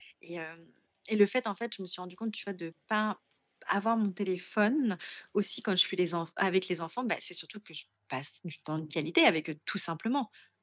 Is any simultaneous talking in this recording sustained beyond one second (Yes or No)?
No